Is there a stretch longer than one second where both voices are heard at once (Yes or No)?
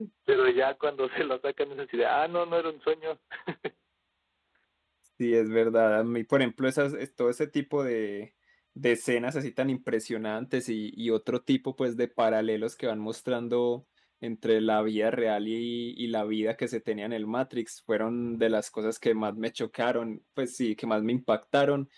No